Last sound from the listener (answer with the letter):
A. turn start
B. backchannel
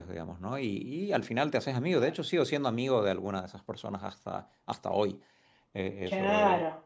A